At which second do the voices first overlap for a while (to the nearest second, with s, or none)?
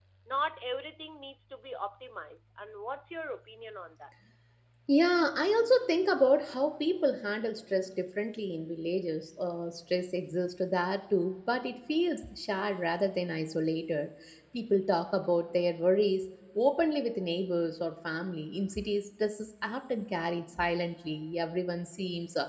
none